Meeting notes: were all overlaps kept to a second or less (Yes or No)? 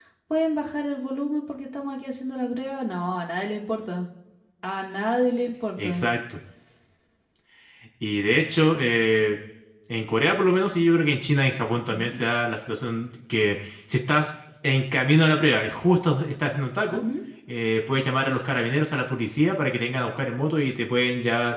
Yes